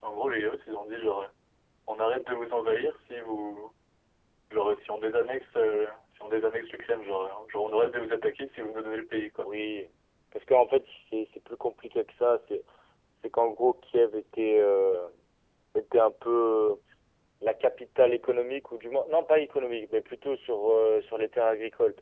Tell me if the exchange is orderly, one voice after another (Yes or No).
Yes